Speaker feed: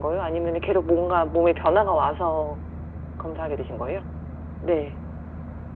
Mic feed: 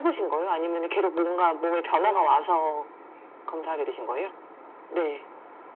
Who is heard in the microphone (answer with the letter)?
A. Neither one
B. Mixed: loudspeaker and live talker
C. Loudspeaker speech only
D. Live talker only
B